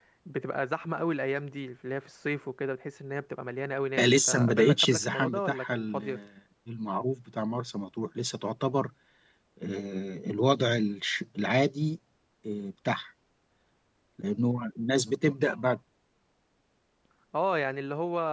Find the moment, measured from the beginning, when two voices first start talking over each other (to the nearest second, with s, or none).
4 s